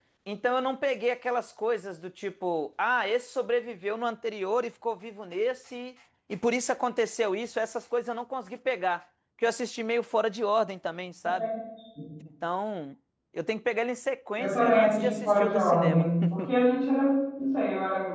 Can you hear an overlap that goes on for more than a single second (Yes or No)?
Yes